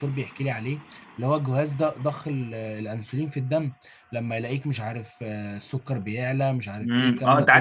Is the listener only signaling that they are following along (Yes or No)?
No